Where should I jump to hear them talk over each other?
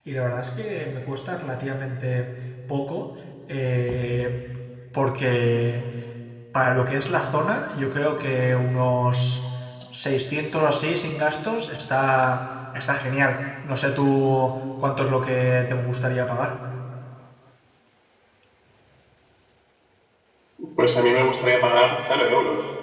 none

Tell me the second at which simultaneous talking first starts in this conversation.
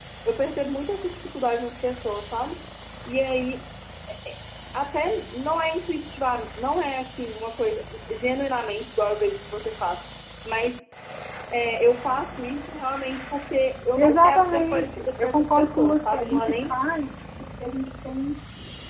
14.0 s

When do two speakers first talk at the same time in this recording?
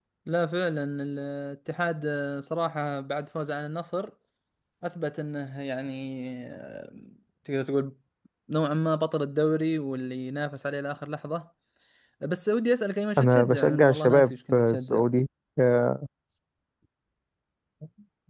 13.2 s

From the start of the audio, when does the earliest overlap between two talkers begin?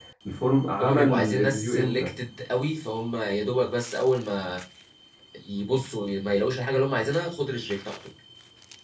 0.8 s

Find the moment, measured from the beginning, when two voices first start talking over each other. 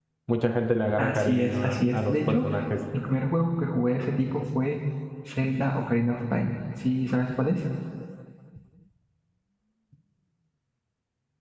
1.0 s

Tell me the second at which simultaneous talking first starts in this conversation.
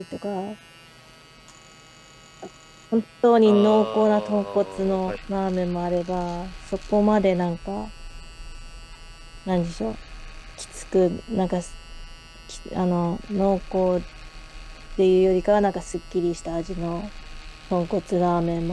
3.4 s

